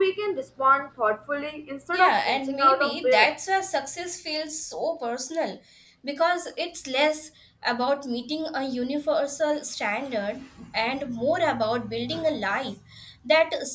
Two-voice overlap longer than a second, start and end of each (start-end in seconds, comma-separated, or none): 1.9-3.3